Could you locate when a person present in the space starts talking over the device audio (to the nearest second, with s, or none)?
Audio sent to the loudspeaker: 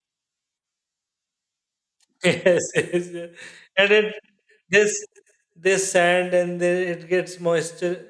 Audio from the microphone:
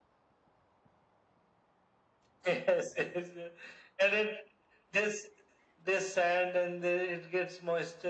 none